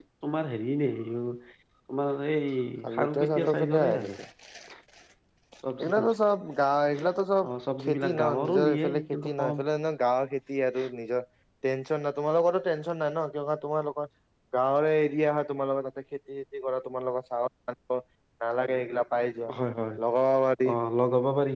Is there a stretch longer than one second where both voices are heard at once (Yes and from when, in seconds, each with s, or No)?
Yes, from 3.0 s